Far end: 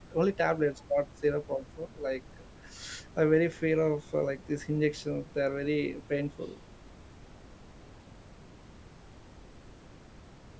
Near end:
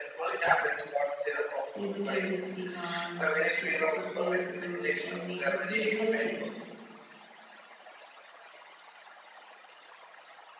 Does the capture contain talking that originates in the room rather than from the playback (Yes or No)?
Yes